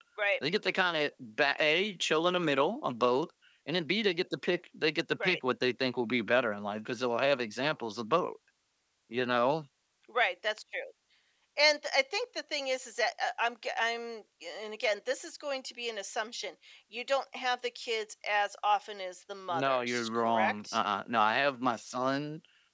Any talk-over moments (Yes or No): Yes